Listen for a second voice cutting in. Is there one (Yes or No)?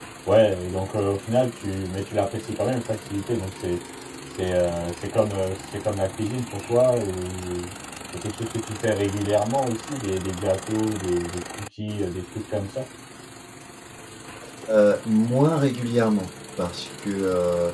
No